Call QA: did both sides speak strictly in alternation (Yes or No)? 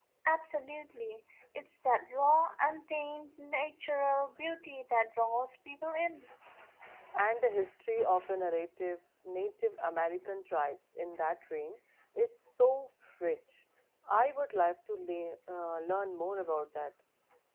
Yes